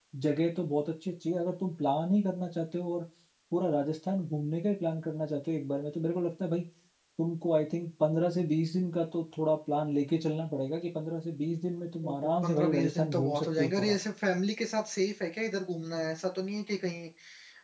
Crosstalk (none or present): present